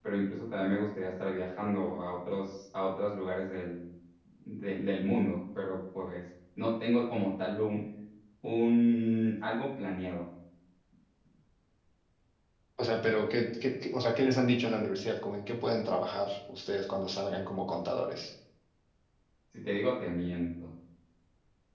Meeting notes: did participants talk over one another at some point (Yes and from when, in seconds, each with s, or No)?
No